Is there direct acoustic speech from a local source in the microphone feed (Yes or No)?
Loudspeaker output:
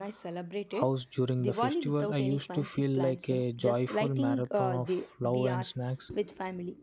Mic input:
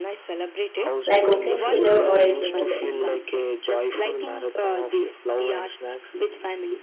Yes